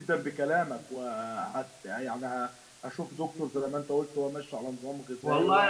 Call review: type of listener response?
taking over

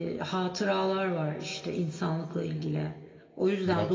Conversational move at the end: listening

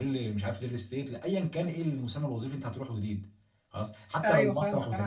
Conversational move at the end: taking over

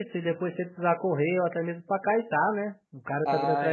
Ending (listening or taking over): taking over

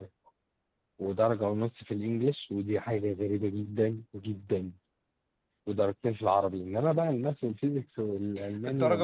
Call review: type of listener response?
taking over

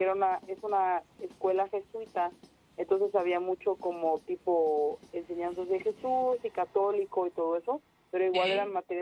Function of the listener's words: listening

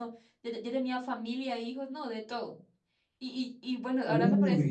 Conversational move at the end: listening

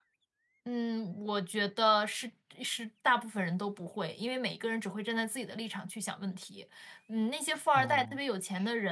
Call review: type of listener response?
listening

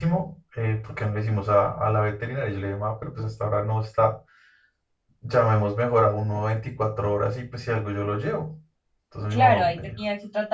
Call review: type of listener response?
taking over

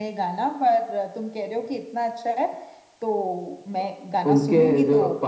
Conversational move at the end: taking over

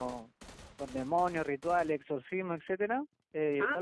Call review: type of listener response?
listening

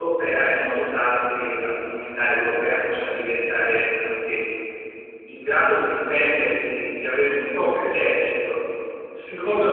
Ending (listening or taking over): listening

